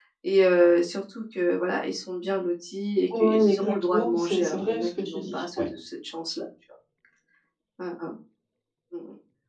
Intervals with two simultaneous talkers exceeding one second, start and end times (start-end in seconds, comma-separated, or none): 3.2-5.7